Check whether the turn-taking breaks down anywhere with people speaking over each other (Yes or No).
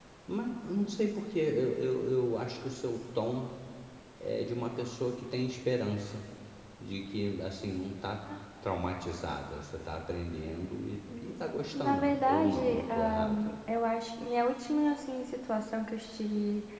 Yes